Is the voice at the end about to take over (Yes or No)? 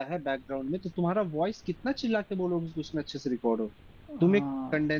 No